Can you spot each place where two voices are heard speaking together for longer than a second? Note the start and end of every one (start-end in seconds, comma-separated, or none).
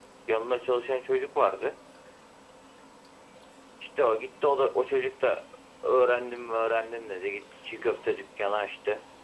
none